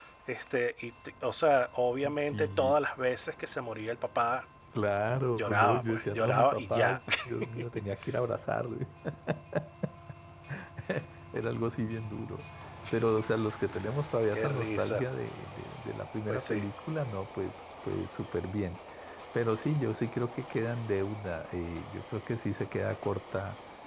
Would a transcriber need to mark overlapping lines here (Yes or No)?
Yes